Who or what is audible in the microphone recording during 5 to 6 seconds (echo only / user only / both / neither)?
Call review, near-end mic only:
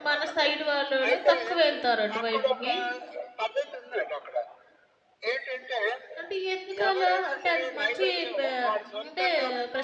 echo only